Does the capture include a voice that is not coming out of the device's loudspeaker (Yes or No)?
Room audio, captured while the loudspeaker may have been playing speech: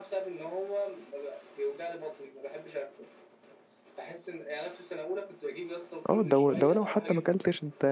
Yes